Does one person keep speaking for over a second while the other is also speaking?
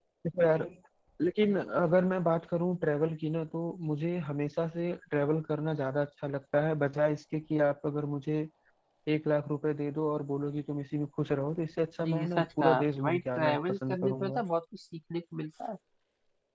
Yes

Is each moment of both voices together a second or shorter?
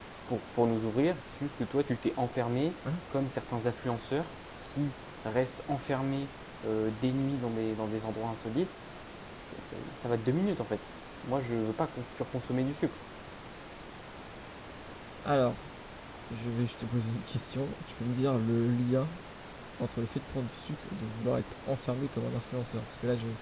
Yes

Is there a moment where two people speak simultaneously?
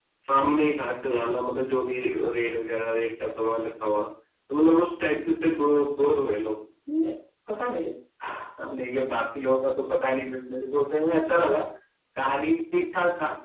No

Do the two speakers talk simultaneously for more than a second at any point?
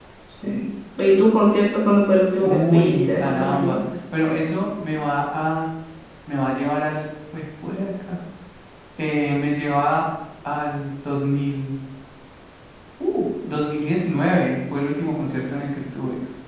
Yes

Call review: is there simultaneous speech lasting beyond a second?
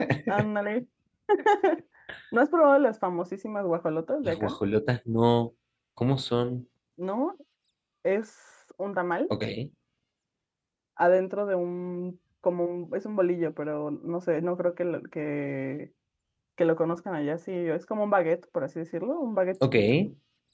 No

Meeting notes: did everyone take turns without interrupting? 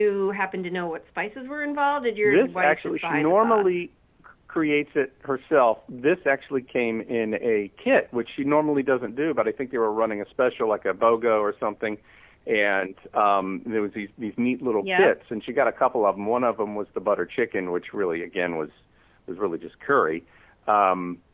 No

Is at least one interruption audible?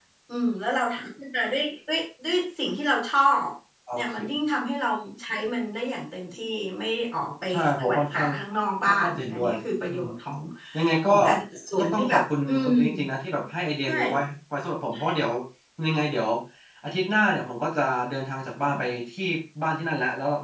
Yes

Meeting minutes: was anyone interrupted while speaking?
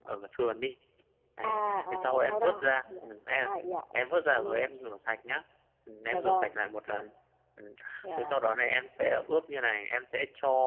Yes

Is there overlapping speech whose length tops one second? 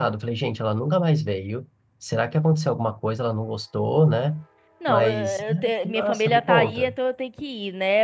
Yes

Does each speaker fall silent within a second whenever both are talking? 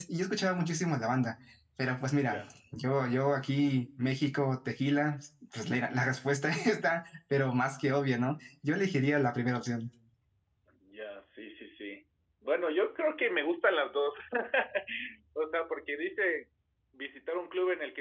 Yes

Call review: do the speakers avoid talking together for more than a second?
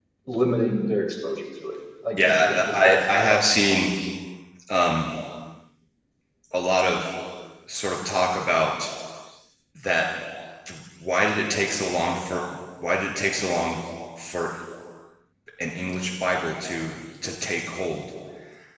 No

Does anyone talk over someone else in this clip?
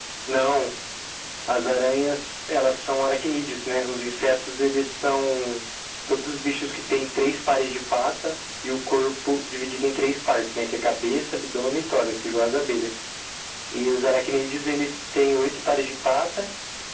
No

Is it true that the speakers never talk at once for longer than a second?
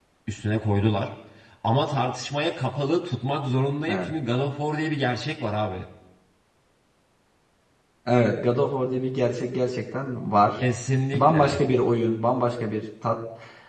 Yes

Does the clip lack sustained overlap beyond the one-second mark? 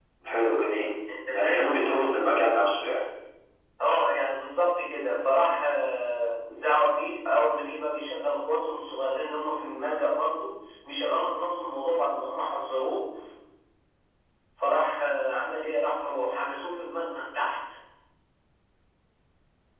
Yes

